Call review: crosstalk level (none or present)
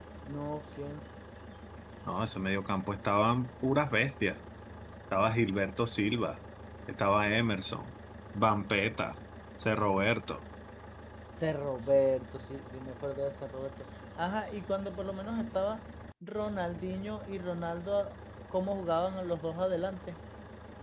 none